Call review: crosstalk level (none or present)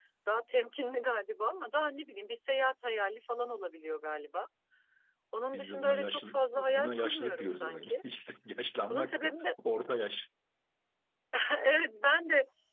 present